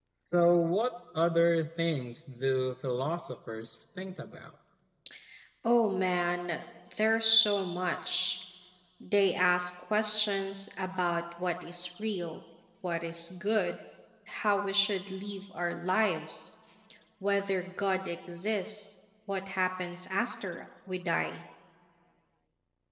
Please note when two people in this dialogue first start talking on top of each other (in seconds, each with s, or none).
none